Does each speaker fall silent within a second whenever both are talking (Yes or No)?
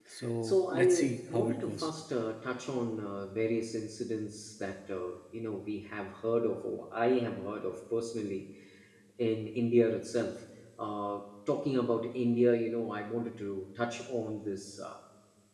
No